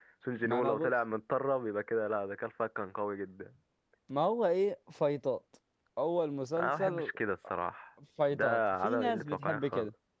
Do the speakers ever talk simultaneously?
Yes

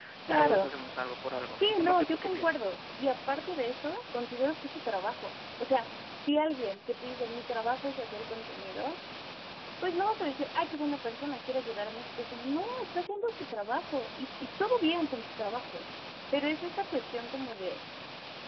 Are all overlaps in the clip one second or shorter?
No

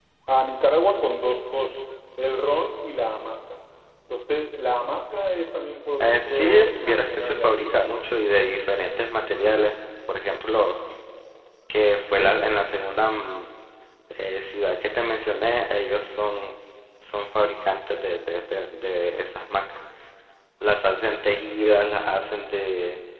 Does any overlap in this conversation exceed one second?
Yes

